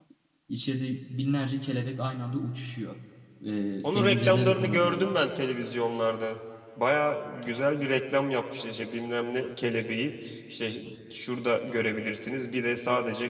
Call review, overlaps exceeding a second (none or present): present